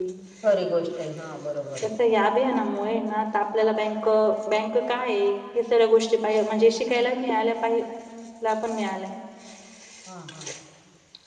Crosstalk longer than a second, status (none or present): none